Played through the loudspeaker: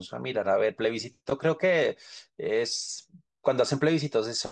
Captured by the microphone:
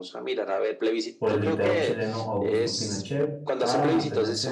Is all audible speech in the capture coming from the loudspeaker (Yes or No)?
No